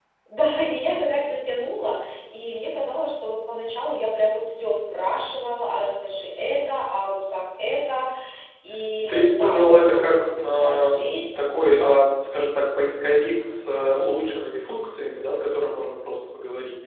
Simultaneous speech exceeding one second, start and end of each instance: 9.0-10.9

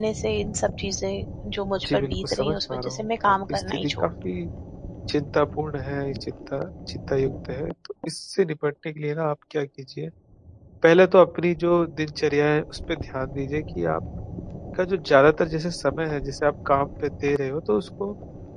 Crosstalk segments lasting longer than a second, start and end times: 1.8-4.1

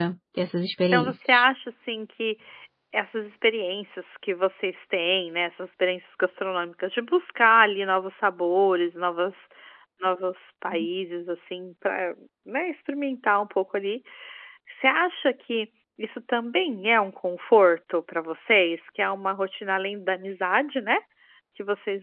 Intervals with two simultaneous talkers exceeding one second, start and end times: none

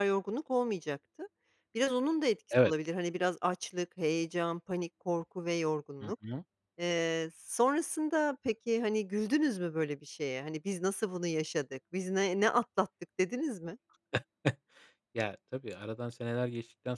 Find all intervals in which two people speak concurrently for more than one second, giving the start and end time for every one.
none

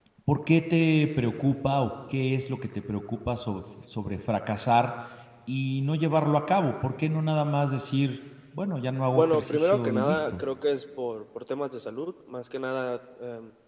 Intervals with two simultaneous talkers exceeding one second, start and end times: 9.1-10.4

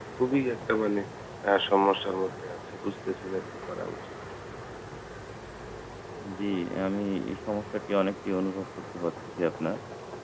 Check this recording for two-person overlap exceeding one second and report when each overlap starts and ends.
none

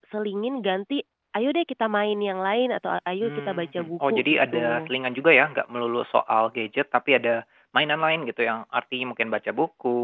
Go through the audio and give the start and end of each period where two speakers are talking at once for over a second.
3.2-4.9

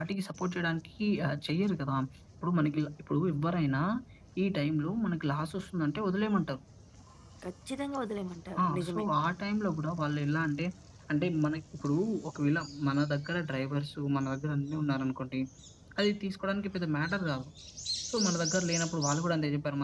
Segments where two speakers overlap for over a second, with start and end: none

